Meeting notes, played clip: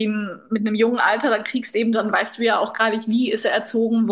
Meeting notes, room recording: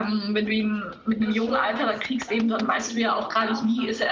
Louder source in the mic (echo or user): echo